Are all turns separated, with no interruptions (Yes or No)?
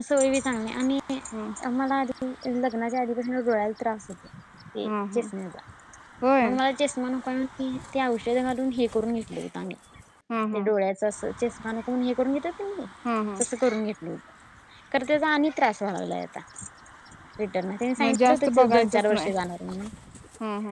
No